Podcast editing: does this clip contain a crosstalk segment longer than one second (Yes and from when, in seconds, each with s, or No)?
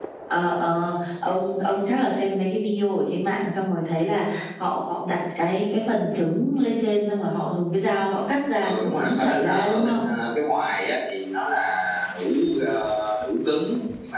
Yes, from 8.6 s